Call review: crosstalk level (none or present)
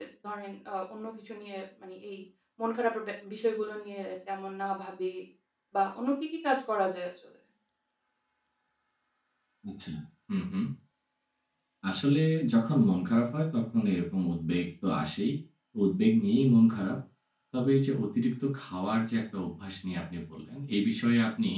none